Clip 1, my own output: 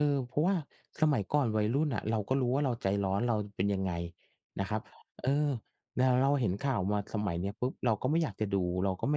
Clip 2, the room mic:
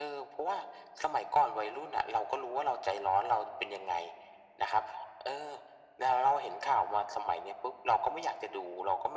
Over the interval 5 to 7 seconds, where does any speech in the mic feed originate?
echo only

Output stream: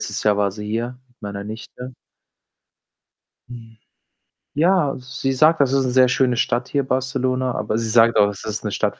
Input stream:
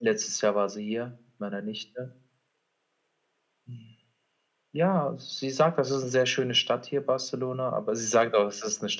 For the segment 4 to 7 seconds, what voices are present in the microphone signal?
echo only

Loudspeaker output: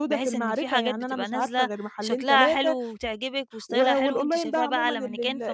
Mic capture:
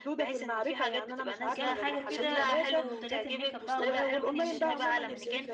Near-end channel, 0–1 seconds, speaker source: echo only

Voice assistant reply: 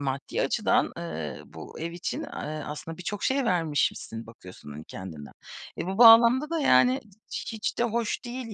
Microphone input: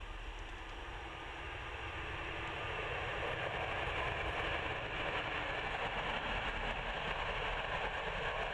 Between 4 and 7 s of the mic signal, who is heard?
neither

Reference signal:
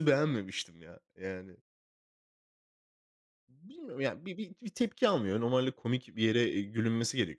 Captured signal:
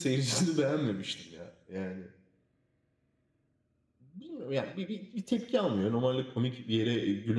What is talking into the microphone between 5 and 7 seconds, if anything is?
echo only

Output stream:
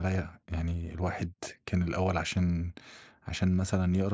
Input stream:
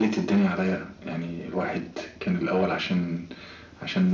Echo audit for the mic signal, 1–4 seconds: echo only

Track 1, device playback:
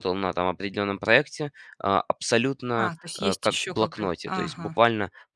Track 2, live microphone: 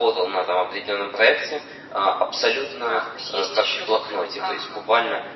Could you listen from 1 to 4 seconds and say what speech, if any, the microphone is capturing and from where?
echo only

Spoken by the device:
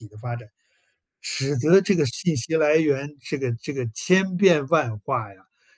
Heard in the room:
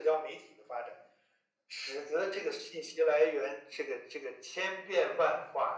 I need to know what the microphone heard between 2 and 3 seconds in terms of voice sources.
echo only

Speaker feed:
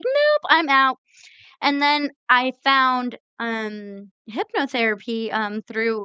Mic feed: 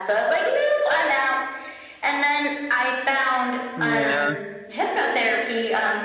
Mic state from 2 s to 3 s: echo only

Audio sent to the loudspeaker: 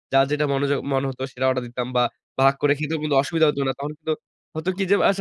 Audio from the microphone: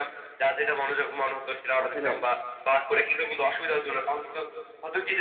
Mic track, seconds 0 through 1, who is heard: echo only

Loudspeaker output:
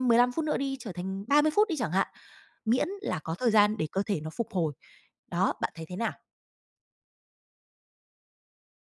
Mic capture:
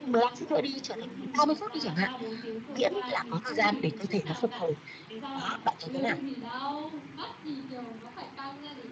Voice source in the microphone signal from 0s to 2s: both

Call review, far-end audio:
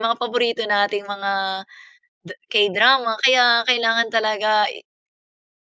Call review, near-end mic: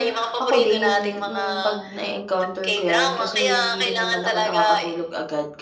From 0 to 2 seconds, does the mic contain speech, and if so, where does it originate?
both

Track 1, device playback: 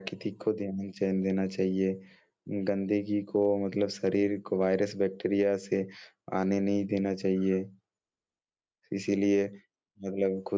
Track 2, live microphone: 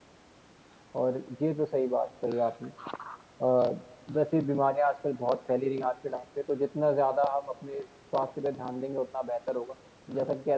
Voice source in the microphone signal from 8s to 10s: user only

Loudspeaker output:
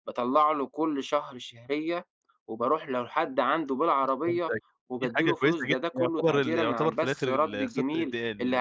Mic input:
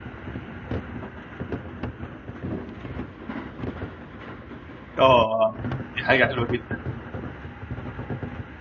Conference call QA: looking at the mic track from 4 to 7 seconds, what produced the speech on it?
user only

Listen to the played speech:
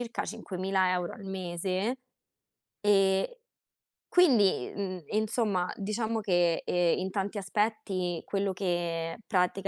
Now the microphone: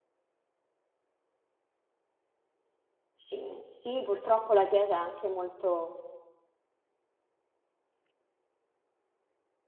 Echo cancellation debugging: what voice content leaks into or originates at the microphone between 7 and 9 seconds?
neither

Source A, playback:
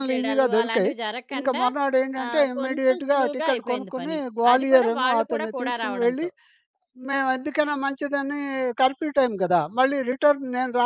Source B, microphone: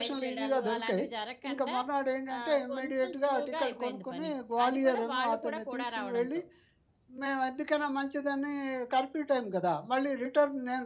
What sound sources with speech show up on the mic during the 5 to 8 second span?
echo only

